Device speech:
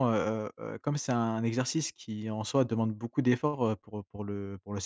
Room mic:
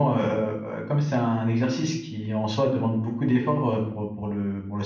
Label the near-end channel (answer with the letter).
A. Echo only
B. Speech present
A